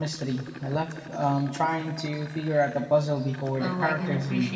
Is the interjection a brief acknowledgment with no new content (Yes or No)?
No